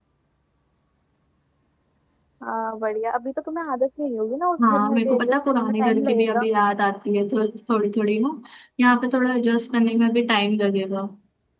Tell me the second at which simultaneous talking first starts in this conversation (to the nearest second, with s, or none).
5 s